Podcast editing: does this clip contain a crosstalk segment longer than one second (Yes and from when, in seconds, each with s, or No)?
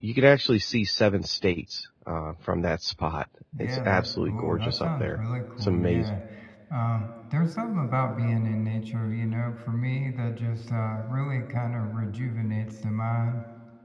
Yes, from 3.5 s